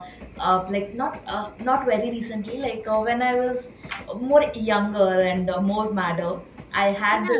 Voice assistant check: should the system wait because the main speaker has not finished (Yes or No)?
Yes